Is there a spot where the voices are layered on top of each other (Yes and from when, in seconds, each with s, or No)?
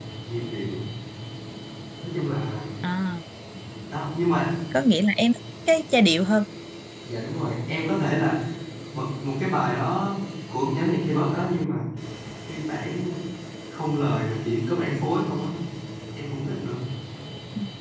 No